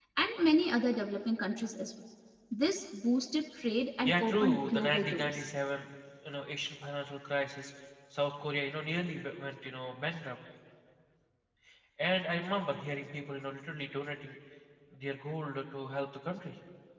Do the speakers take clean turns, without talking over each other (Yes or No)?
No